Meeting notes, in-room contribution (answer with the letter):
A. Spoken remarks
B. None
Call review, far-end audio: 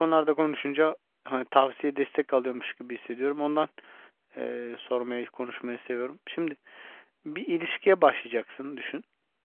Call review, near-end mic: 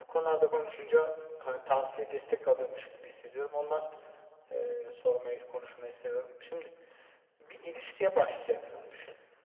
B